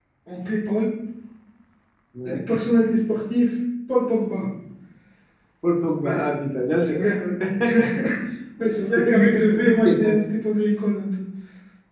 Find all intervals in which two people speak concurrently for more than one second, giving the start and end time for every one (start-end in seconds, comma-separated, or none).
9.0-10.2